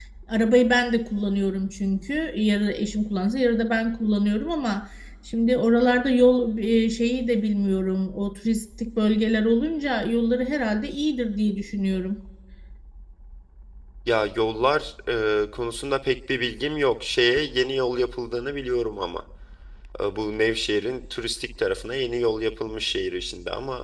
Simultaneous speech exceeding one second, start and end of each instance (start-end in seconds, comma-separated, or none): none